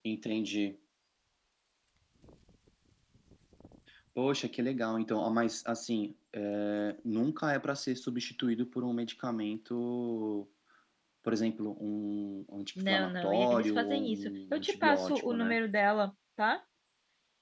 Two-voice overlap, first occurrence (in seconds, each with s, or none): 12.8 s